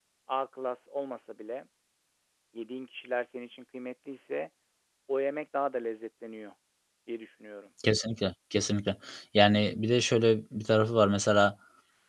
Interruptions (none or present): none